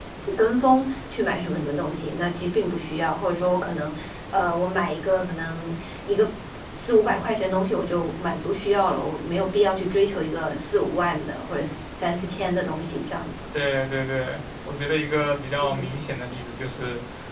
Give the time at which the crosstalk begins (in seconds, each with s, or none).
none